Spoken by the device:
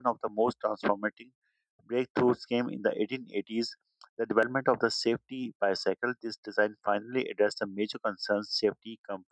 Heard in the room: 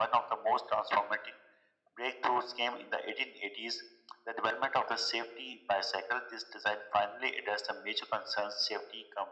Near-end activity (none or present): none